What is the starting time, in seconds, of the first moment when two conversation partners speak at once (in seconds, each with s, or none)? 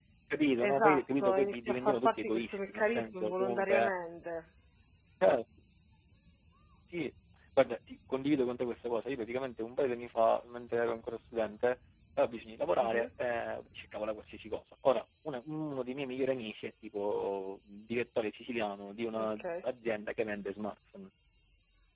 0.6 s